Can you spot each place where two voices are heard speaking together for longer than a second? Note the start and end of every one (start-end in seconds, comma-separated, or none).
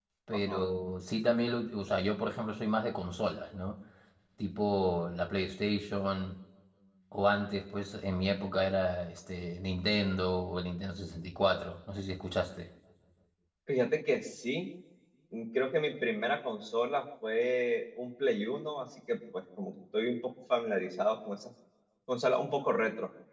none